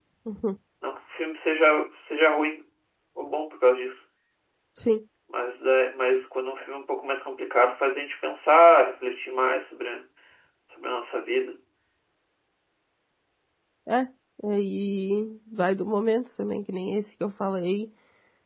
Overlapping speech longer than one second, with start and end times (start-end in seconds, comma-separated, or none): none